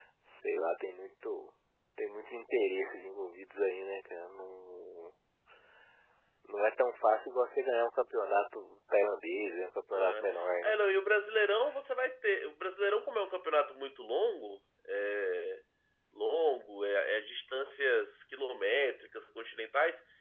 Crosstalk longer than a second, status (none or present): none